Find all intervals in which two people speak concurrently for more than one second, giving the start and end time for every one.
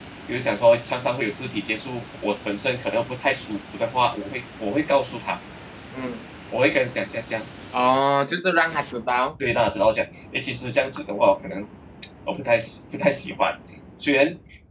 none

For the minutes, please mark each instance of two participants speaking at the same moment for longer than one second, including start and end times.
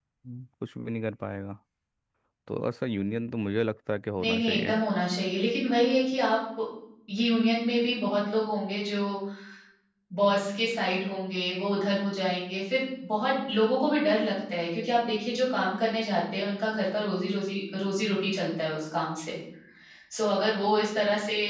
none

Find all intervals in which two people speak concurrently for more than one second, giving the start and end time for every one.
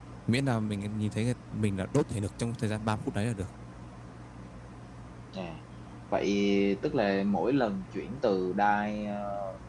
none

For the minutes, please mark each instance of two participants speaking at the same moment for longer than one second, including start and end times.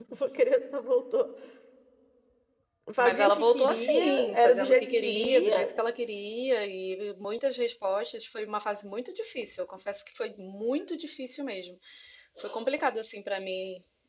3.0-5.7

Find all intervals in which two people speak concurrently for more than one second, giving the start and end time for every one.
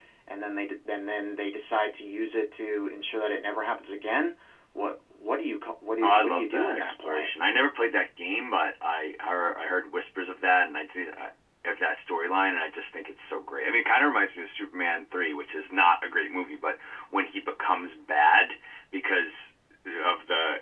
6.0-7.3

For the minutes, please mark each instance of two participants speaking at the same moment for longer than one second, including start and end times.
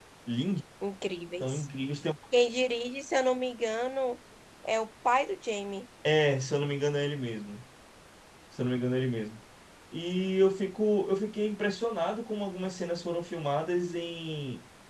none

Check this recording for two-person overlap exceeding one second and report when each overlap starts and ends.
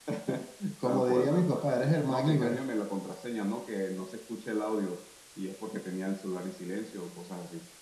0.8-2.6

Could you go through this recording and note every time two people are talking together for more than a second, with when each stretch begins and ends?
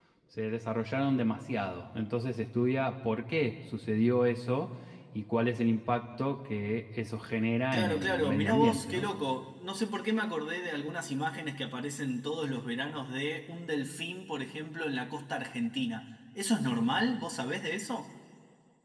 7.7-9.1

